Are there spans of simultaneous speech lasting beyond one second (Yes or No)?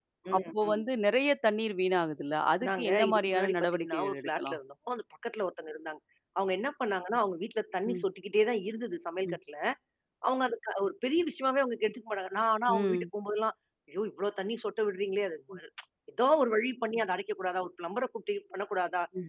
Yes